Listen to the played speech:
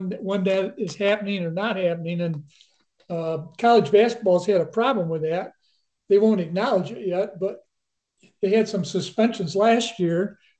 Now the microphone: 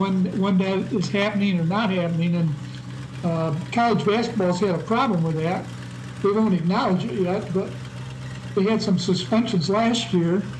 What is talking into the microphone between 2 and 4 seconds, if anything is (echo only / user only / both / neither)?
echo only